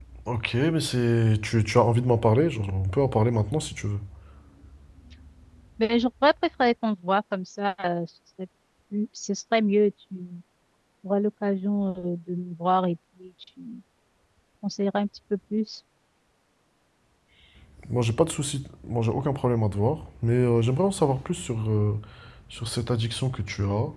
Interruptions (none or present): none